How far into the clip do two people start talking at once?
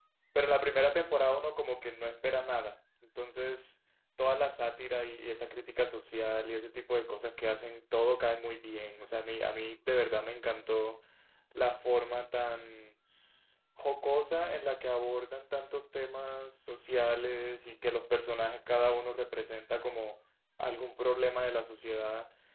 none

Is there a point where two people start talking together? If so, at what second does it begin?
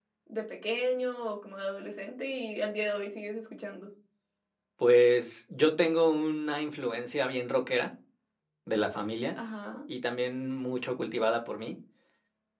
none

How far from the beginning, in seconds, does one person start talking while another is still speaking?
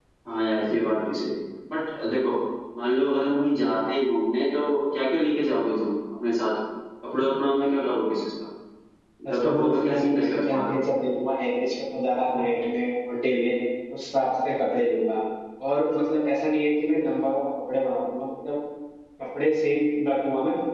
9.3 s

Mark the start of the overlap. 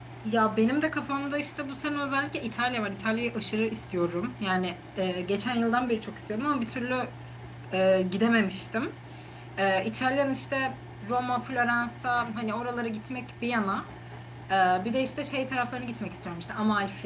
none

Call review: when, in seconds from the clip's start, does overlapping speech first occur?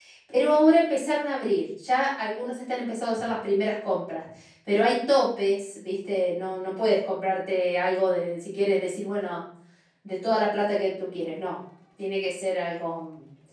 none

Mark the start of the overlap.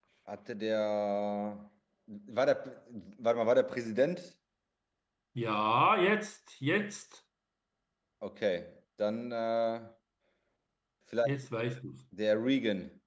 none

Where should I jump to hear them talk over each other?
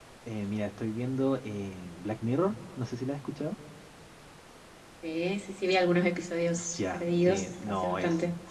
6.8 s

